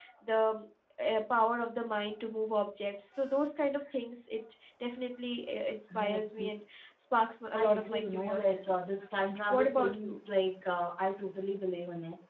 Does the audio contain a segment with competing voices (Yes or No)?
Yes